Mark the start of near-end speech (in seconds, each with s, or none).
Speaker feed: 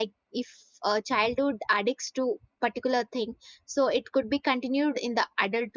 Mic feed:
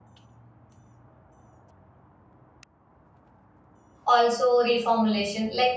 4.1 s